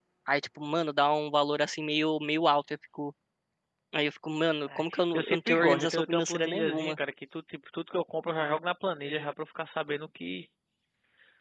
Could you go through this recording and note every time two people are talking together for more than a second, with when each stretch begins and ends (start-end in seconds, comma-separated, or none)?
4.8-7.0